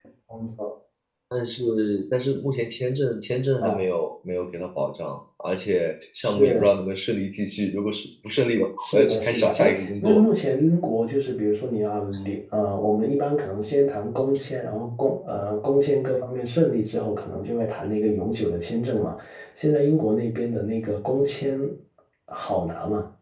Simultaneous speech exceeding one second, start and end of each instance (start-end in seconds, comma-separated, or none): 8.8-10.2